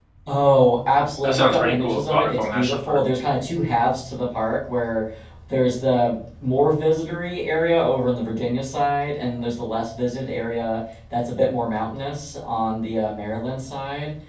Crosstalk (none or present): present